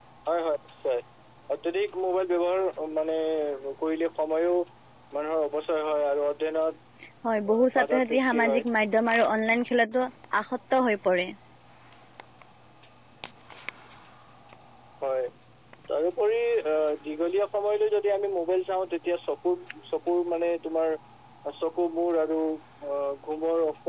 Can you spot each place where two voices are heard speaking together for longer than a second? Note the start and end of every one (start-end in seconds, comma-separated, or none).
7.5-8.7